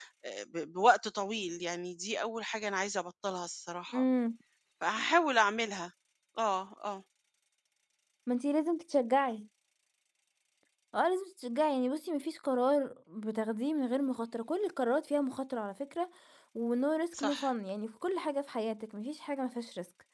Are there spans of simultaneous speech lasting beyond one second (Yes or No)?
No